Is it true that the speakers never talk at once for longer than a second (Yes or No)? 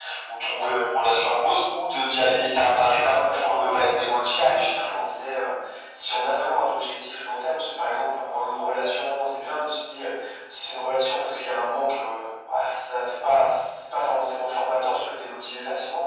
No